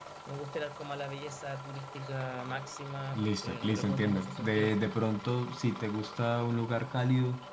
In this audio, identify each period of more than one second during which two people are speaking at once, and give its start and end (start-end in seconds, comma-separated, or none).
3.1-4.7